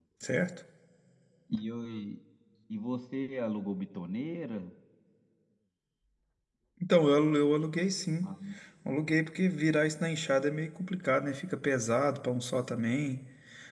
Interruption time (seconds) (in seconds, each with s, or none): none